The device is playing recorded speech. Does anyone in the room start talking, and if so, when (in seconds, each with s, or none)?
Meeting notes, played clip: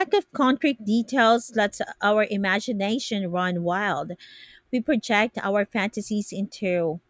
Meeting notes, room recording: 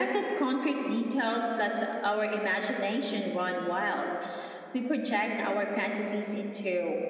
none